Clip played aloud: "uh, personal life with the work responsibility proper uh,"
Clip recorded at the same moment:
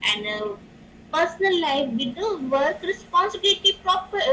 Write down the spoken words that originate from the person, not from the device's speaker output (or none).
none